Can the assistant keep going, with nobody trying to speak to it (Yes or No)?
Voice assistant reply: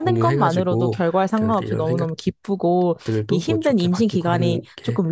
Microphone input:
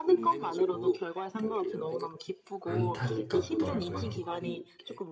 No